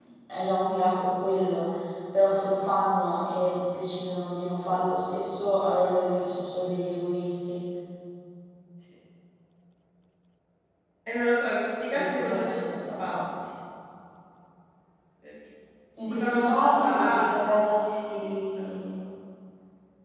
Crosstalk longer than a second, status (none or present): present